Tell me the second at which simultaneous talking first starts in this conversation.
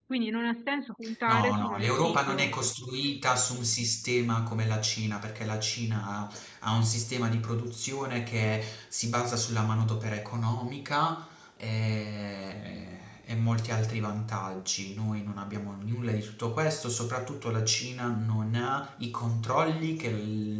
1.3 s

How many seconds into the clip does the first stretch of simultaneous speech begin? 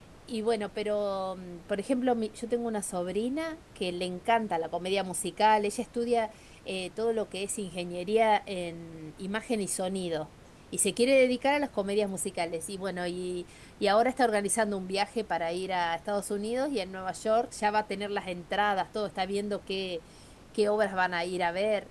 none

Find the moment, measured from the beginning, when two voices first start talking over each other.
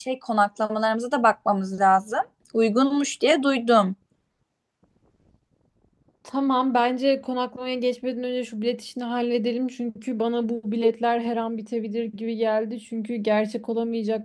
none

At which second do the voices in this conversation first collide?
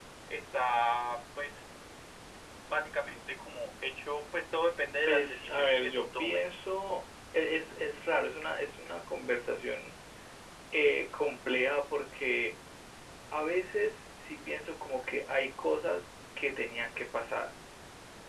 5.0 s

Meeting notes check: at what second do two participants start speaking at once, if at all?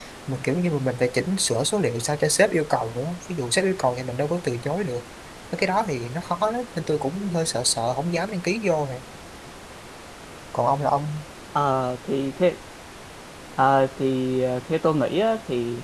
none

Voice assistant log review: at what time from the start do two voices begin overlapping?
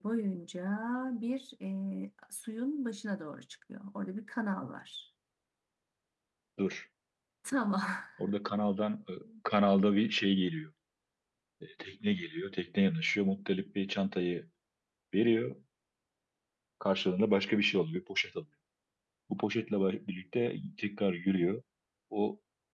none

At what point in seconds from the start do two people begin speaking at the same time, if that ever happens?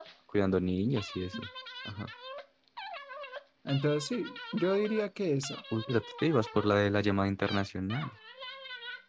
none

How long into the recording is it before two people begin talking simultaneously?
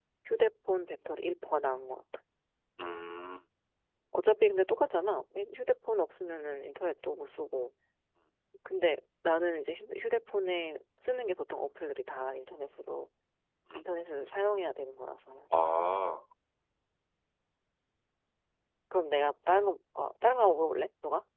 none

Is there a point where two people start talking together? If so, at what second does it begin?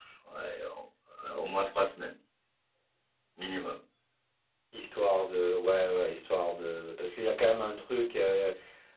none

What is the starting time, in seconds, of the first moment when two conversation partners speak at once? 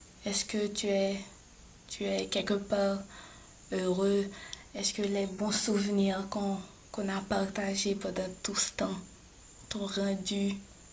none

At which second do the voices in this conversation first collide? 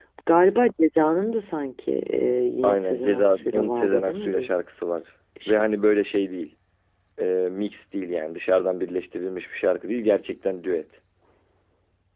2.6 s

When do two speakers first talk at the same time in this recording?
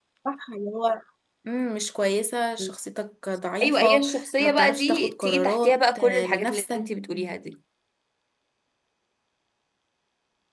3.6 s

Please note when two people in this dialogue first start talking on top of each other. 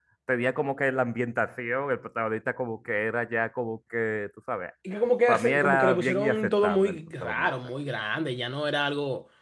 5.3 s

